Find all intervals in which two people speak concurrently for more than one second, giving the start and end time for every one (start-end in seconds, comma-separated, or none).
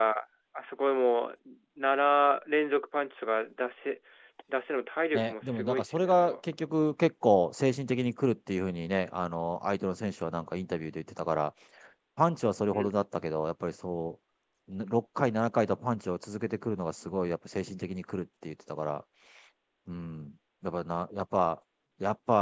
5.1-6.4